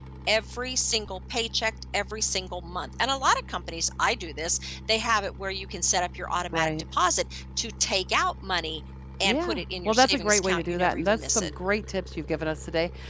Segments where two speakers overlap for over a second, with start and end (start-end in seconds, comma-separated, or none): 9.2-11.5